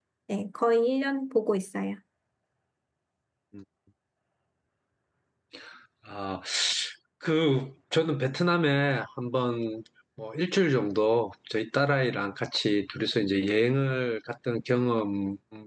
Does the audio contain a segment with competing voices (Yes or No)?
No